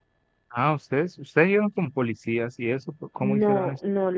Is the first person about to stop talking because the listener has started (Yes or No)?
Yes